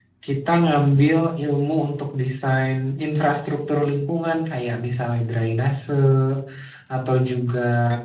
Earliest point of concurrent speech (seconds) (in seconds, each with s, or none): none